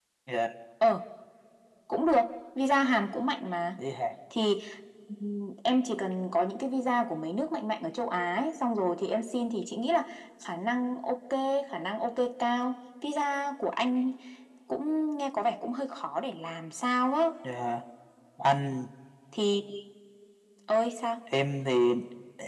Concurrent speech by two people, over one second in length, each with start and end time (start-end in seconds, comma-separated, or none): none